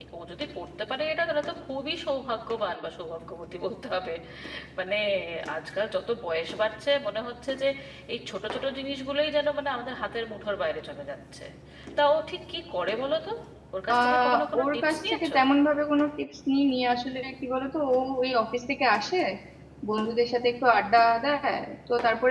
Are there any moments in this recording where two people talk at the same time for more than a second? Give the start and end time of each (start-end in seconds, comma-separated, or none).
13.9-15.3